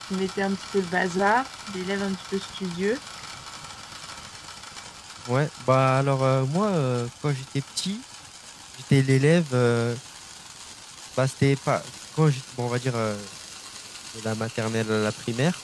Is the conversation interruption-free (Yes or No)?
Yes